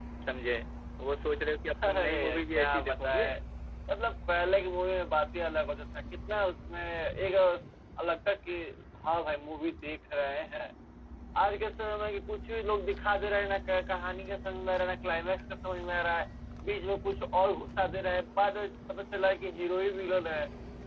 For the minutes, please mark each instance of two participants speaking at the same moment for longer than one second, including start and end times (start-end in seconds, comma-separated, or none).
1.8-3.2